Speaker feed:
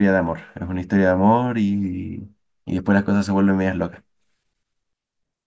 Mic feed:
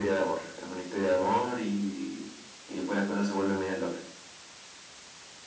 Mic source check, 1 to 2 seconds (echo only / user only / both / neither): echo only